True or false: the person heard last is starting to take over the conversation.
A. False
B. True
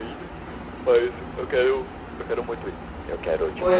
B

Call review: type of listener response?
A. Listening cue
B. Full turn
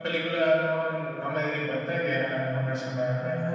B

